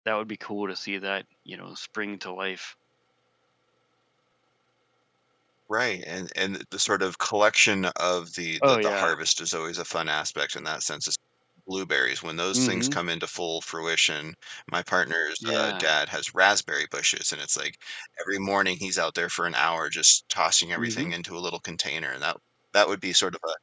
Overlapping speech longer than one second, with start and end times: none

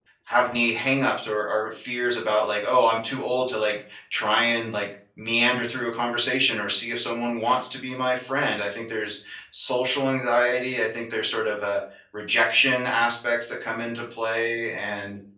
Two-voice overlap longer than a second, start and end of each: none

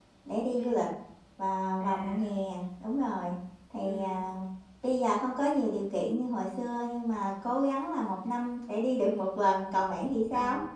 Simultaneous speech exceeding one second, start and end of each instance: none

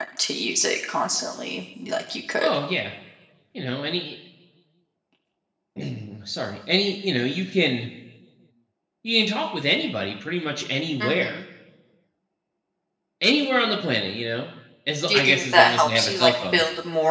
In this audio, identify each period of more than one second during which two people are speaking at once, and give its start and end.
15.1-16.6

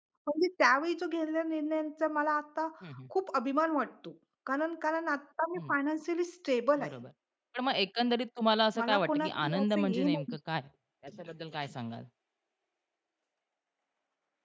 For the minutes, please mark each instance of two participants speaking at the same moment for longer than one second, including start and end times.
8.8-10.3

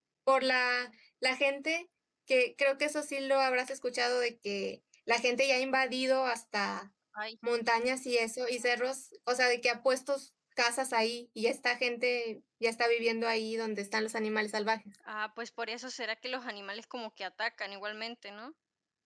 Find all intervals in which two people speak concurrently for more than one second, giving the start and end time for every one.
none

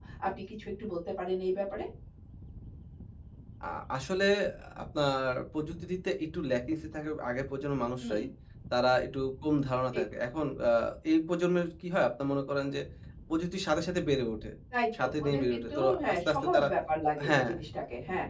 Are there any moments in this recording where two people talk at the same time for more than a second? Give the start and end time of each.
15.0-16.7

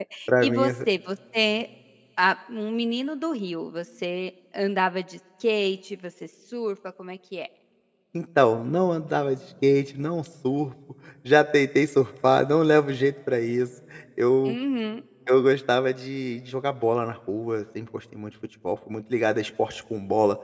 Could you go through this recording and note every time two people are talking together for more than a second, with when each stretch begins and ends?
none

